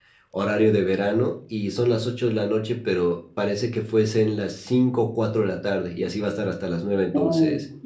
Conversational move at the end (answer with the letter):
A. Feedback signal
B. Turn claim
B